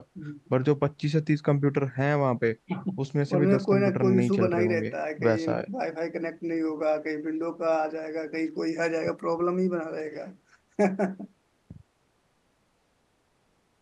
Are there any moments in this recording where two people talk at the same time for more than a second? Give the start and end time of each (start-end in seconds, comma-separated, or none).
3.4-5.7